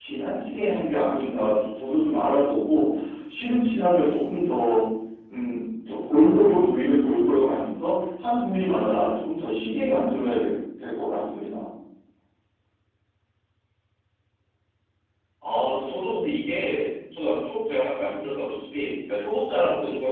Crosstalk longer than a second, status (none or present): none